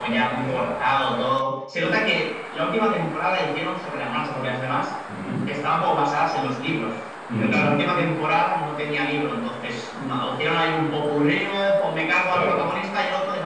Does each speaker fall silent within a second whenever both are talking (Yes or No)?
Yes